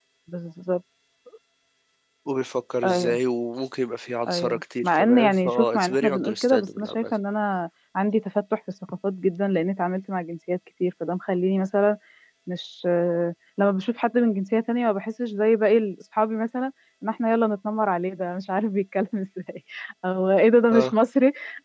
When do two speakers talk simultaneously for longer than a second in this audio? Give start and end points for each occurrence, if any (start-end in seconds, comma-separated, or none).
4.3-7.1